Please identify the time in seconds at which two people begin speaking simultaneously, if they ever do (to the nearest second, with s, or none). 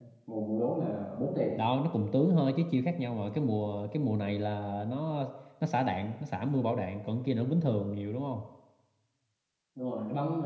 none